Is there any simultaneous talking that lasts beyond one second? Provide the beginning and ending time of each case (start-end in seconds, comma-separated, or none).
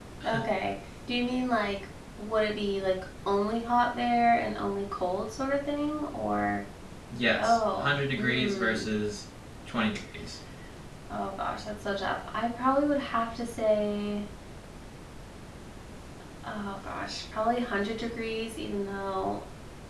7.4-8.9